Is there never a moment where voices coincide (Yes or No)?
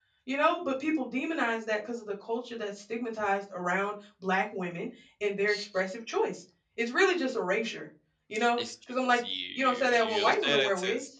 No